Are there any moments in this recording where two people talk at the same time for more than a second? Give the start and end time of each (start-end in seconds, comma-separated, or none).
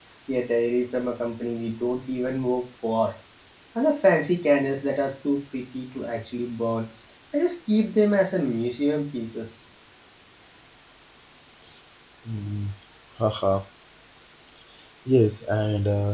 none